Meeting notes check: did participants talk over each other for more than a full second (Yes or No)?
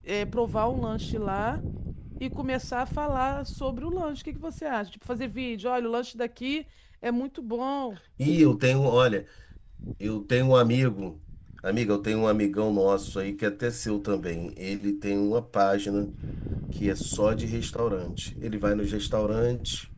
No